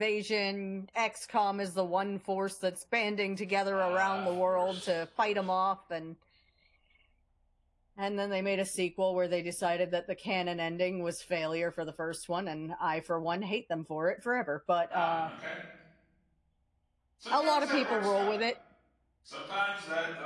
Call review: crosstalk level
present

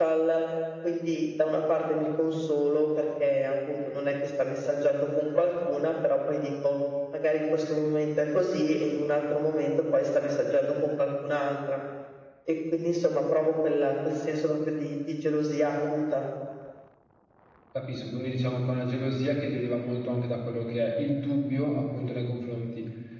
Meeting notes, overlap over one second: none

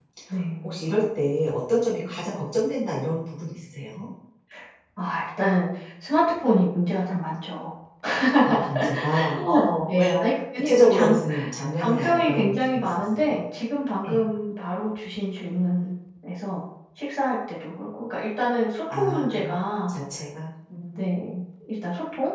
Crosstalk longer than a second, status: present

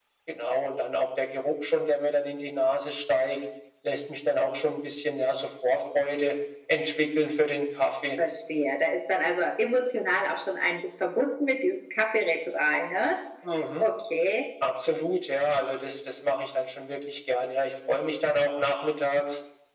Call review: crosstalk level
none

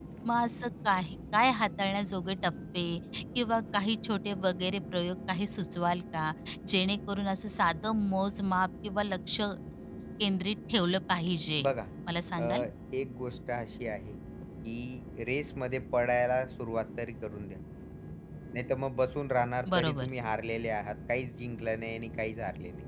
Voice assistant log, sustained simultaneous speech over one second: none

